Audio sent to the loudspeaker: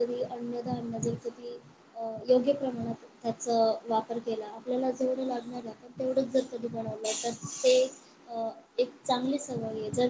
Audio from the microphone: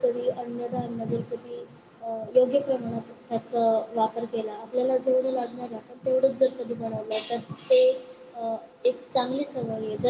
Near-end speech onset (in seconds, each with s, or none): none